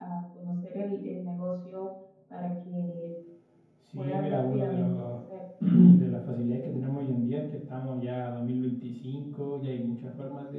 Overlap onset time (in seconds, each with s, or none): 4.0 s